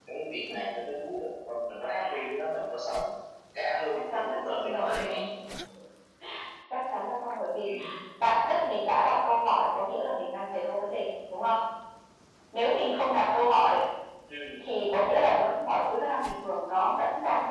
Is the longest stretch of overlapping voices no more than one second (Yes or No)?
No